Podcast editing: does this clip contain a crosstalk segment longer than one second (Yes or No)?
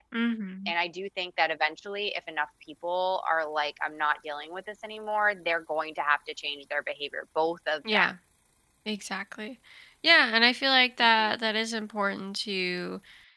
No